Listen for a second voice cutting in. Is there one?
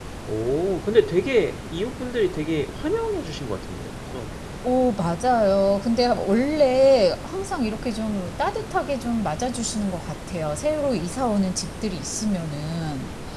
No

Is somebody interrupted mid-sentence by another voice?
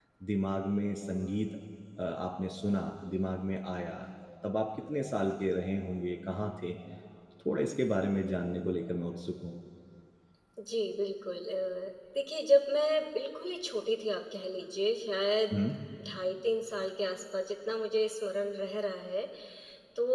No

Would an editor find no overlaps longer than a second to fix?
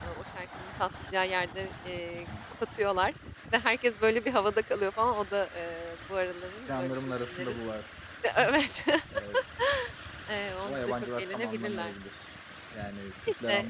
No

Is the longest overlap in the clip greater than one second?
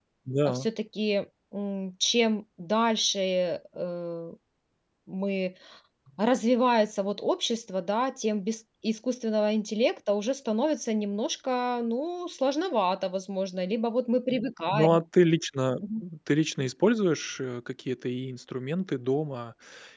No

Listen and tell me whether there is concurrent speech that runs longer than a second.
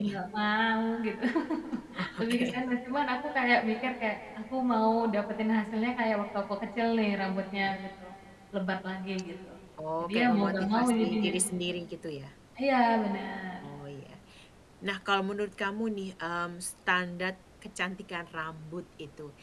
Yes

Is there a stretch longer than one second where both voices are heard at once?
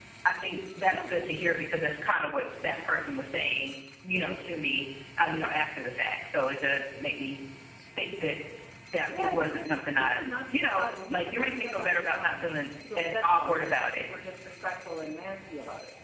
Yes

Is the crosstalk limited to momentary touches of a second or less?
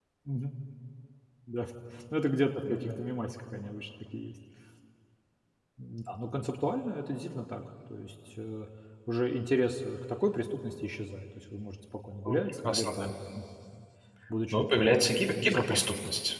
No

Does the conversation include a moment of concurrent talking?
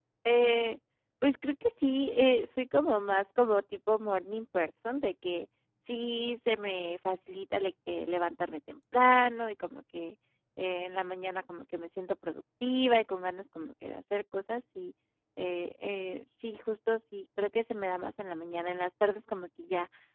No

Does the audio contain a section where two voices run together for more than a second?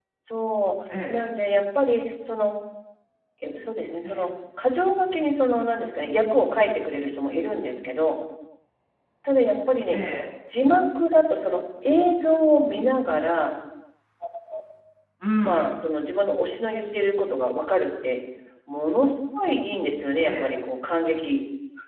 No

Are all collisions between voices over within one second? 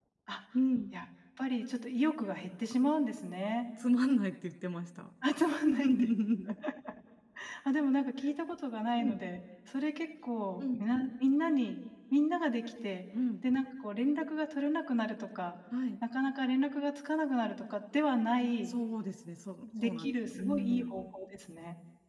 No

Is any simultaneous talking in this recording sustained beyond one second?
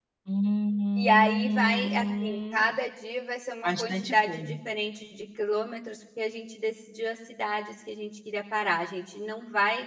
Yes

